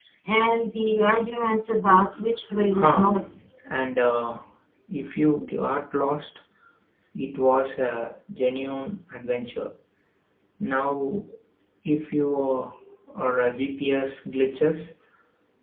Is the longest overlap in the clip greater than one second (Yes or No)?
No